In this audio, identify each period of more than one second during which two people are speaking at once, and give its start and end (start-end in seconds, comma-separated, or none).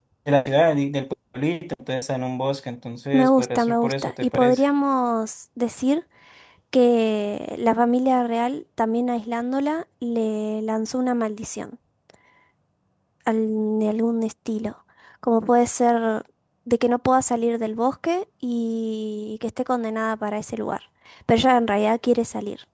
3.1-4.6